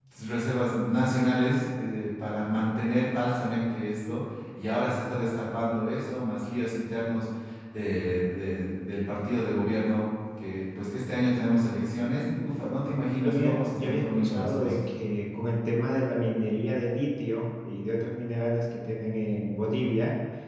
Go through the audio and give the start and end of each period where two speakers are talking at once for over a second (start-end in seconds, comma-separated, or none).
13.2-14.7